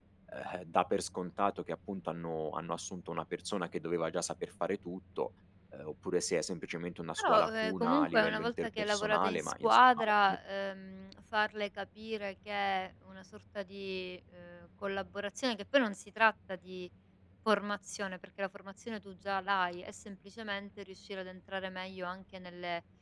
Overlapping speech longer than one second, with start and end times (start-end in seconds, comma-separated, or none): 7.2-10.4